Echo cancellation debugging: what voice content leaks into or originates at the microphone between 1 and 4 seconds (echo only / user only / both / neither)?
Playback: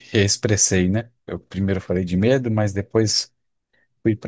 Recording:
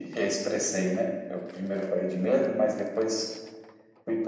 echo only